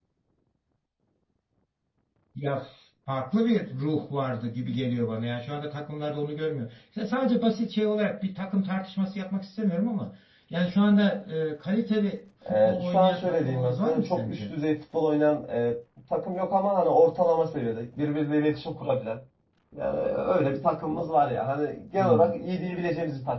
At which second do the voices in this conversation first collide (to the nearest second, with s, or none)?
12 s